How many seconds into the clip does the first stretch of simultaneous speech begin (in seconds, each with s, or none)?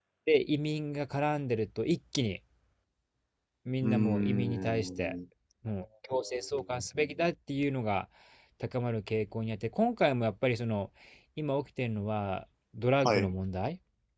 3.8 s